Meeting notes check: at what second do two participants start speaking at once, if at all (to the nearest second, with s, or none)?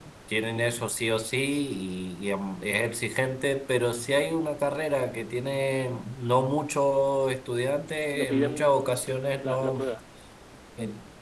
8 s